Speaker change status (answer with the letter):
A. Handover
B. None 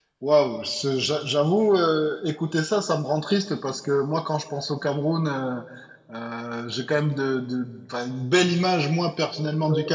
B